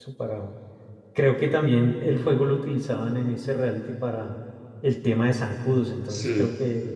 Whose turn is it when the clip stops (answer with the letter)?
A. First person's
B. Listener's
A